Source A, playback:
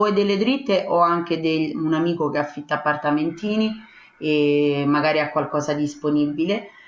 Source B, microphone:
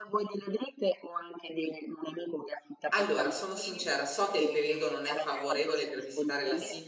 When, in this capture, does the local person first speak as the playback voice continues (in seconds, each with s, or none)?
2.9 s